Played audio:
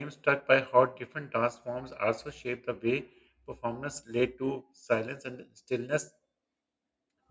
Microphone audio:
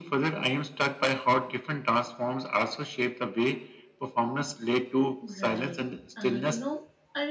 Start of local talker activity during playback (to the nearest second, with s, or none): 5 s